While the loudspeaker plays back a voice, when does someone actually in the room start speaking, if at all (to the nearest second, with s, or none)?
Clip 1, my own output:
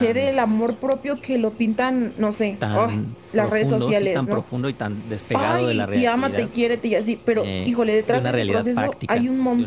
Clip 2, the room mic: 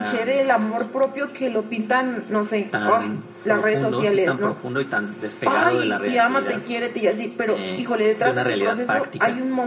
none